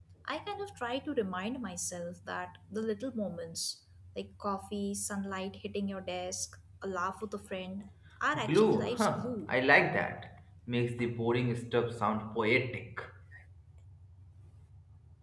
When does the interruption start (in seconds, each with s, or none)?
8.3 s